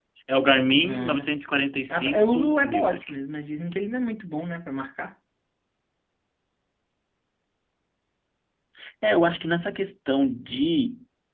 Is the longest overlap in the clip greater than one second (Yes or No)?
Yes